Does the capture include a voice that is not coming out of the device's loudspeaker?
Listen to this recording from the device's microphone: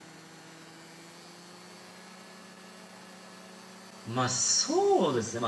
Yes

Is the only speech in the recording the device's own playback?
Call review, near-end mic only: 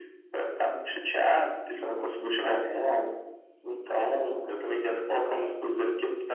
Yes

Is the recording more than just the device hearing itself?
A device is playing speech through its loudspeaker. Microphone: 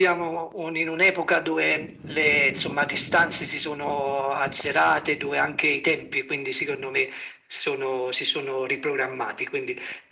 No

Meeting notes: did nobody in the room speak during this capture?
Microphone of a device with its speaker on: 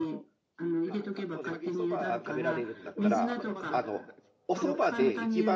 No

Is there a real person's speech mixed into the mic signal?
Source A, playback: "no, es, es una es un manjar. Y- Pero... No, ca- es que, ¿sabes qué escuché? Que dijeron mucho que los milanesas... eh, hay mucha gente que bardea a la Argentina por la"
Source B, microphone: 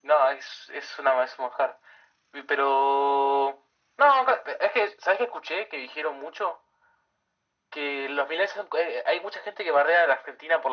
No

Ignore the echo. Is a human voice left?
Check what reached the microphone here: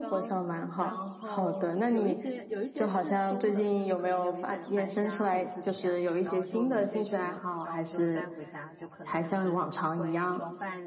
Yes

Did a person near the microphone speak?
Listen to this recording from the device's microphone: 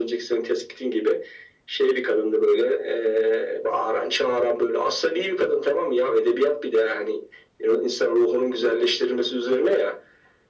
No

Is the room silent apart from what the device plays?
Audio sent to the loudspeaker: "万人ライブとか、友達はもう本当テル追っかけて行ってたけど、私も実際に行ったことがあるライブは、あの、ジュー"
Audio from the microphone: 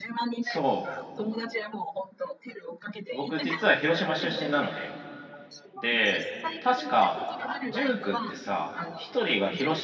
No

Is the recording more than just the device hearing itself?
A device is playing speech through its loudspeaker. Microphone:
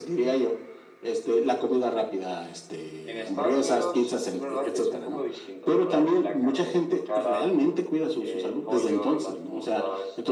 No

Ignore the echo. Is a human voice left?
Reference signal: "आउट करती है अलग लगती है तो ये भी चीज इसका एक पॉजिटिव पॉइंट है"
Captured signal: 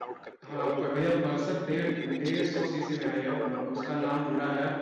Yes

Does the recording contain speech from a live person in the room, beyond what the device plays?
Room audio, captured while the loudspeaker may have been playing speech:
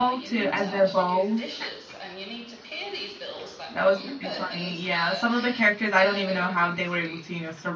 Yes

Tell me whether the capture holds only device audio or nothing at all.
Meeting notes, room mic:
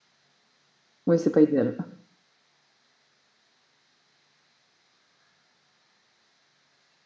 No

